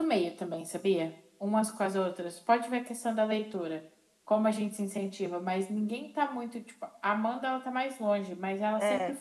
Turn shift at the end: No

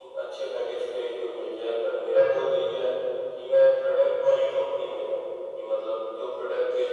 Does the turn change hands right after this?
No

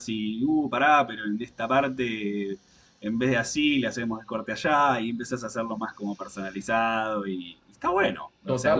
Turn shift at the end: Yes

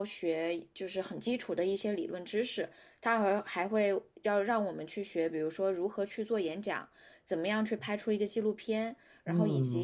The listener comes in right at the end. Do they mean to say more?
No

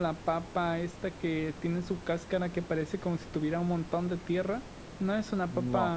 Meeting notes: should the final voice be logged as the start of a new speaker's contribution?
No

